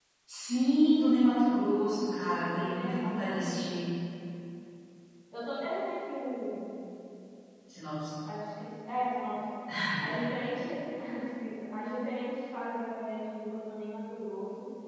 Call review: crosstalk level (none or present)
present